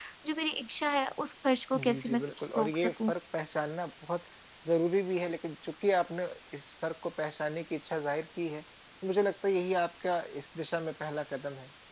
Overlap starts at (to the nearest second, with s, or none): 2 s